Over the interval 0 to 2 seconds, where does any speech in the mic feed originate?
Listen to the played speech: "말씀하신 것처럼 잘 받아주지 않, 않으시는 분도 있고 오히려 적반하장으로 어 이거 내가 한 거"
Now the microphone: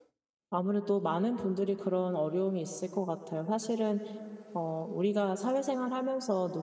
user only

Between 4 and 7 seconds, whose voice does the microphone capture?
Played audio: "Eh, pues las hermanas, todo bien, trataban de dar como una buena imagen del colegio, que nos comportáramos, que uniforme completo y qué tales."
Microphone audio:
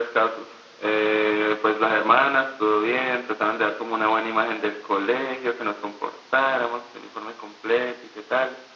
echo only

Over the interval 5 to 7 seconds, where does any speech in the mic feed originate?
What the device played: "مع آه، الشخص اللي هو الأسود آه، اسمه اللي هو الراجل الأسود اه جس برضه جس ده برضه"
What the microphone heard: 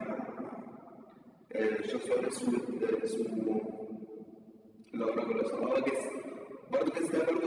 echo only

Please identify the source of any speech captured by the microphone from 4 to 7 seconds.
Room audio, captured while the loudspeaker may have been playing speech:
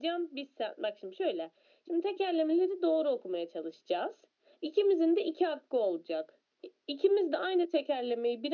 echo only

